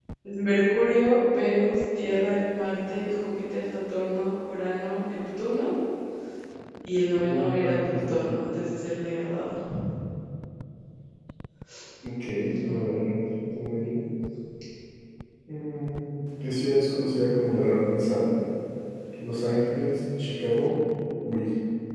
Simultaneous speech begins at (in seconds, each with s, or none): 7.2 s